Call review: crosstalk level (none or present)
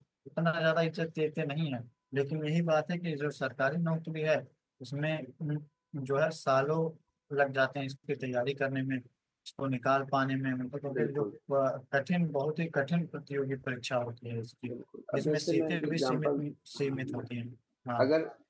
present